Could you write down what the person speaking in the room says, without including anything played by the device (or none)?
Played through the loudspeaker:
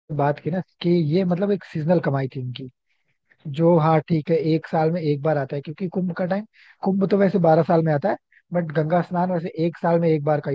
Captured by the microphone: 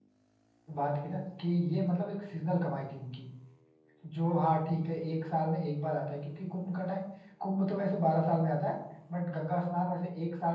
none